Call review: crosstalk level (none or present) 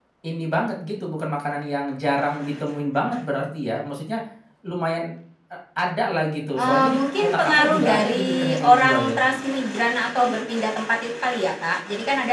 present